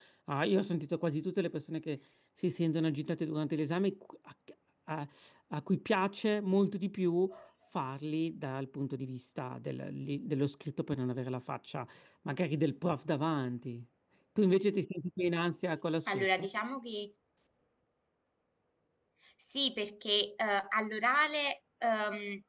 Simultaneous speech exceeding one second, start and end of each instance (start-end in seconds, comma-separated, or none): none